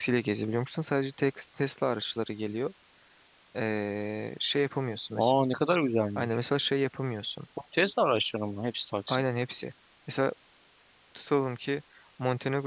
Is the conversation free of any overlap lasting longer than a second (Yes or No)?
Yes